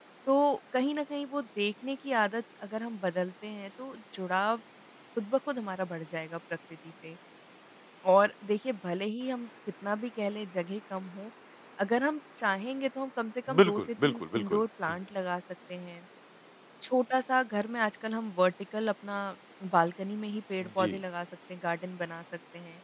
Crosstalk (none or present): present